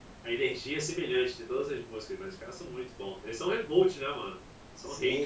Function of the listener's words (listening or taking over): taking over